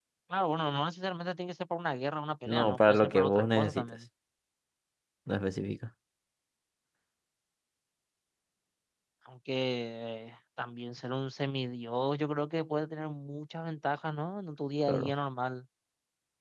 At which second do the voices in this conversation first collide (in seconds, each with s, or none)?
2.5 s